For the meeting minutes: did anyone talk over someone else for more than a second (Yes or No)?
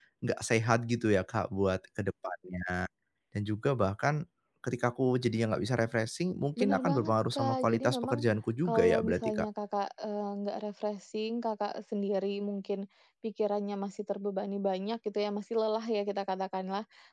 Yes